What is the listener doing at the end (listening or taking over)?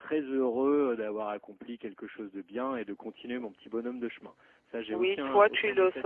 taking over